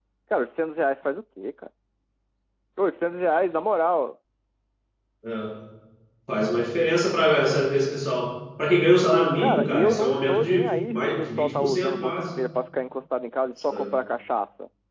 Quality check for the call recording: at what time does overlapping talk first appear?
9 s

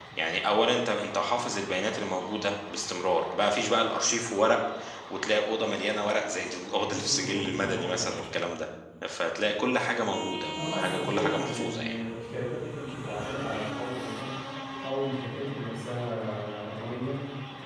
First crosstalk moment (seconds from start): 7 s

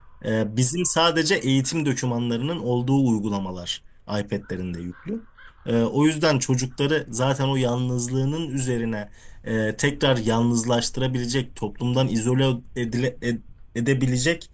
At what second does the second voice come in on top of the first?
none

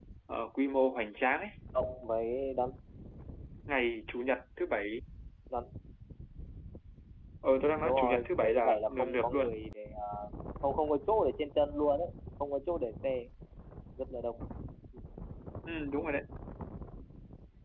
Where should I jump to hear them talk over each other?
8 s

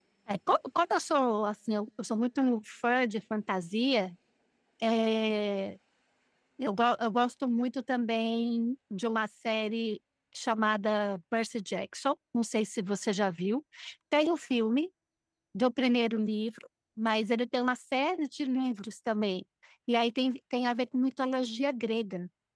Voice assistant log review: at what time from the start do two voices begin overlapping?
none

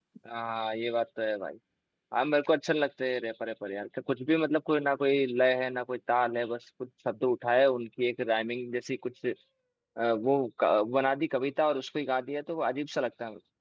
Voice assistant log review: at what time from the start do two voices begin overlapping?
none

